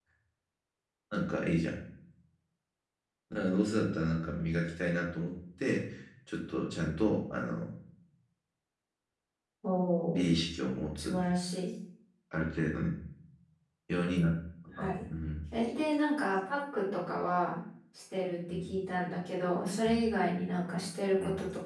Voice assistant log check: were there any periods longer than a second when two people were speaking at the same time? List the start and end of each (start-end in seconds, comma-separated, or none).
none